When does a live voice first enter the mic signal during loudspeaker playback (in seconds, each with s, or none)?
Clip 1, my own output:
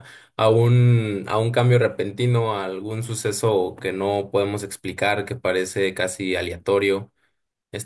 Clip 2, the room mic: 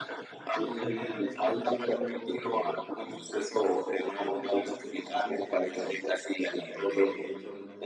0.5 s